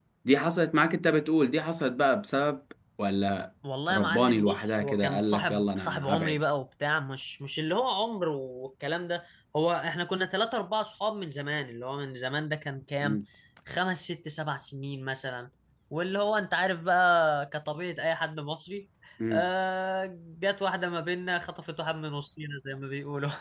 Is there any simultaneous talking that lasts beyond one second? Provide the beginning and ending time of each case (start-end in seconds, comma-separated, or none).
3.9-6.4